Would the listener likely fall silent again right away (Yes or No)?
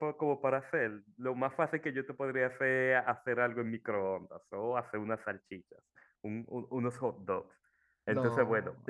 Yes